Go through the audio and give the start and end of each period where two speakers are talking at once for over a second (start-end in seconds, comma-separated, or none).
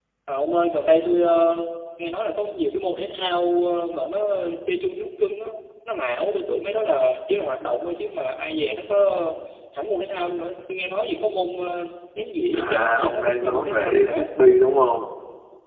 12.5-14.2